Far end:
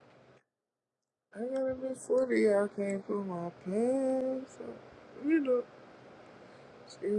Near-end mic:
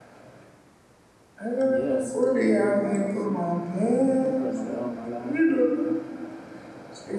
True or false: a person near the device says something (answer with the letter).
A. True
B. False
A